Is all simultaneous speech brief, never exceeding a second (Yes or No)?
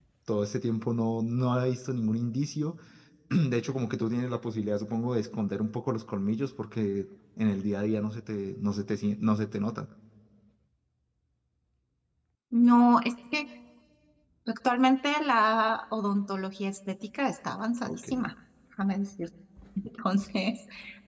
Yes